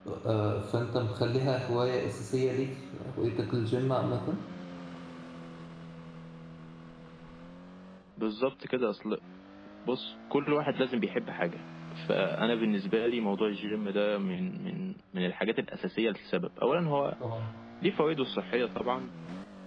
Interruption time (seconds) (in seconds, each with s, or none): none